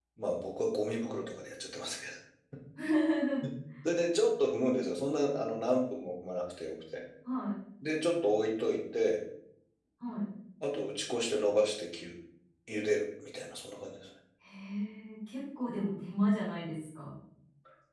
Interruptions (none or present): none